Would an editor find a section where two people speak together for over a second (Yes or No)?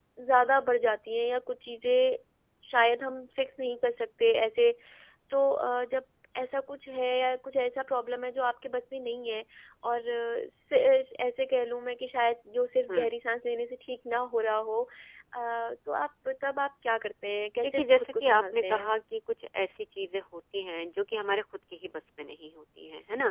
Yes